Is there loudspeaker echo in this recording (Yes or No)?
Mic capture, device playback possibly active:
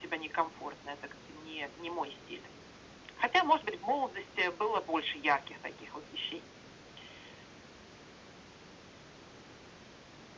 Yes